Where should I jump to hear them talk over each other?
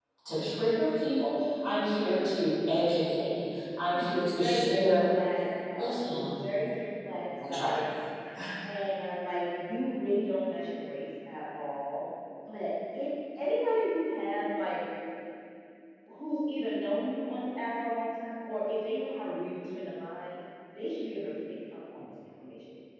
3.9 s

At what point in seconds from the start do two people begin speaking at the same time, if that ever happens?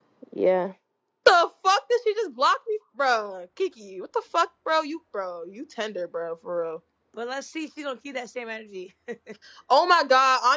none

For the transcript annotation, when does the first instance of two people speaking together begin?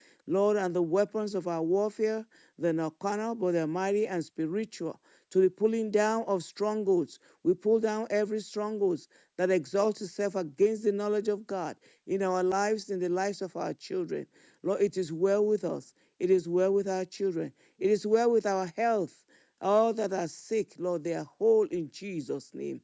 none

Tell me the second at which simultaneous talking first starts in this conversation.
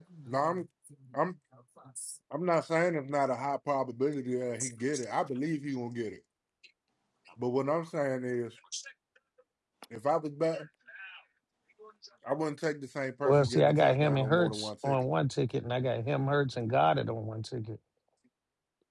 13.2 s

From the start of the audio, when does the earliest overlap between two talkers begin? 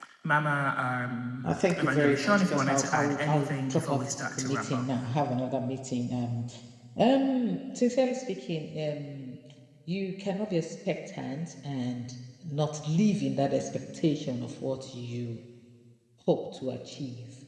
1.7 s

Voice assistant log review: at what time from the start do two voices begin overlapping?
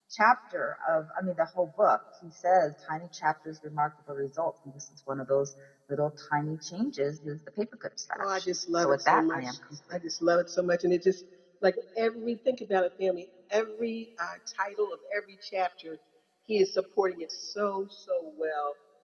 8.2 s

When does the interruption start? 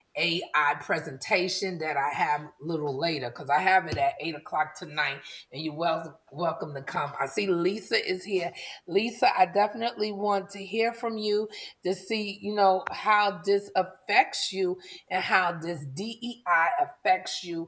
none

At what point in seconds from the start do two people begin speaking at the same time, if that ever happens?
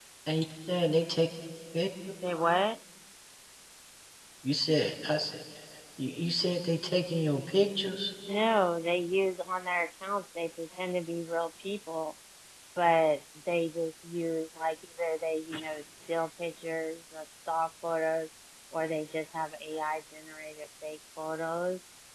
none

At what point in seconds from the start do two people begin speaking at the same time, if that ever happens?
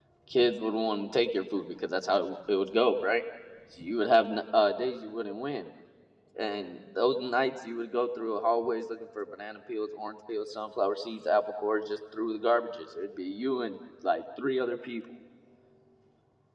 none

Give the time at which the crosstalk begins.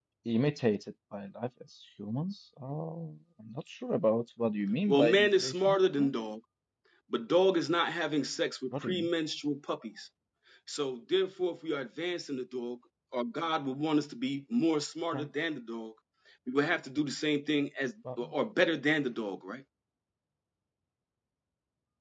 4.9 s

